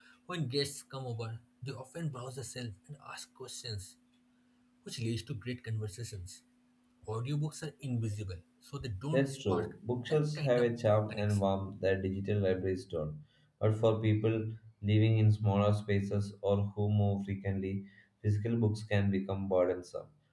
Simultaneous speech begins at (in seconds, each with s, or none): 9.1 s